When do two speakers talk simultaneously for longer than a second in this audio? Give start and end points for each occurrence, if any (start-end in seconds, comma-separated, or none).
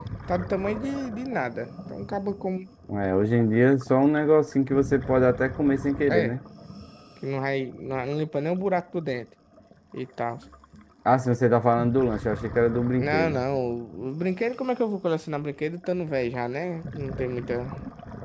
none